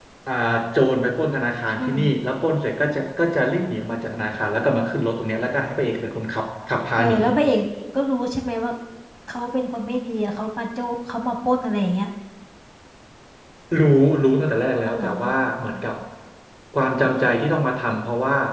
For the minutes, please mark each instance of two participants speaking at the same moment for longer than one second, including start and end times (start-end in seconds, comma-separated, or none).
none